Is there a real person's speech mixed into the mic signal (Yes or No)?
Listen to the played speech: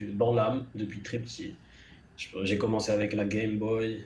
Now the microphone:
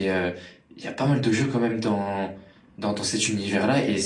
Yes